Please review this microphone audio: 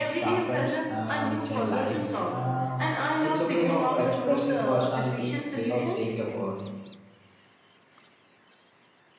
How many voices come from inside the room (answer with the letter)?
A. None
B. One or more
B